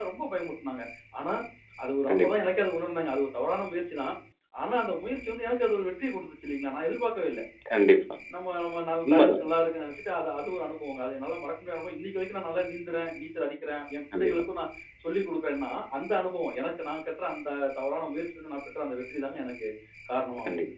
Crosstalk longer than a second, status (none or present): none